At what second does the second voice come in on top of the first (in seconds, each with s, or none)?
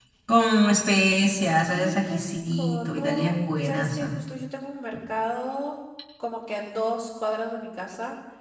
1.7 s